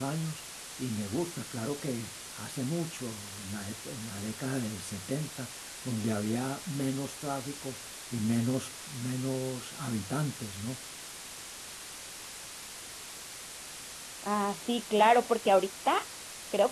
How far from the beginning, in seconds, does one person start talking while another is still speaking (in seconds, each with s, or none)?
none